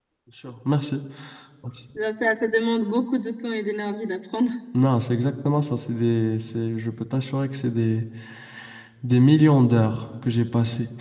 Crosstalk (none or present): none